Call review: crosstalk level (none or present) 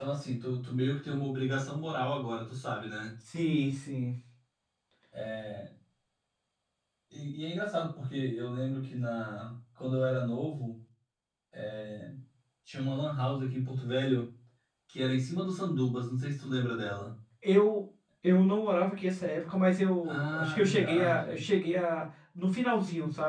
present